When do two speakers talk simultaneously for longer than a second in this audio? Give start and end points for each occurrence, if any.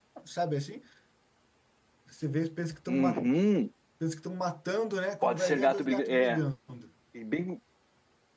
5.2-6.4

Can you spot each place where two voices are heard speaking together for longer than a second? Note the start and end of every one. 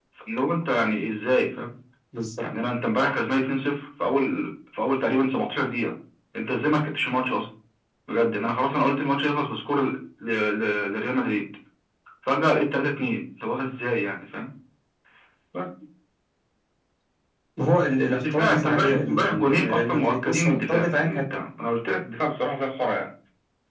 18.1-21.2

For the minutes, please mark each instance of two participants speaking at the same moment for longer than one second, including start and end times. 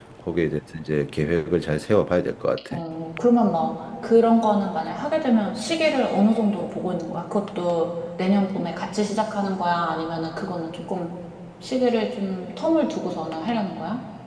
none

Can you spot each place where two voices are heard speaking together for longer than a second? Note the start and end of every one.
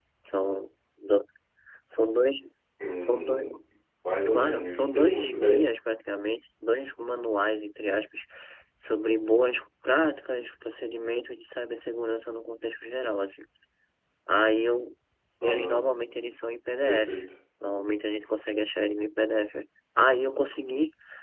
4.3-5.6

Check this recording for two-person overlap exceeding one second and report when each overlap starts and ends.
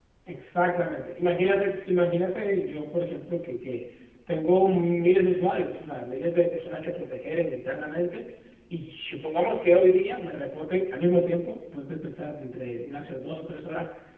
none

